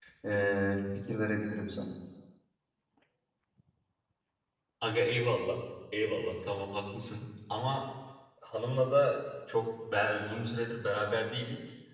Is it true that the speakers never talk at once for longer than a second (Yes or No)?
Yes